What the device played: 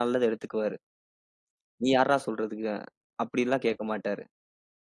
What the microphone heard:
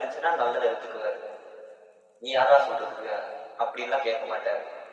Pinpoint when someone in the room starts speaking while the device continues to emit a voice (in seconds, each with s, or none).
none